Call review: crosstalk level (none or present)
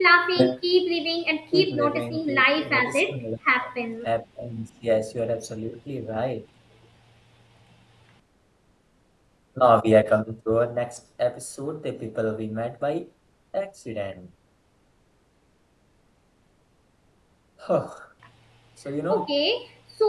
present